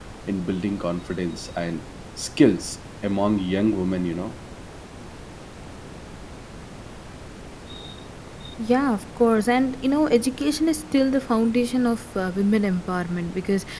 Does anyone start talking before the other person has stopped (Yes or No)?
No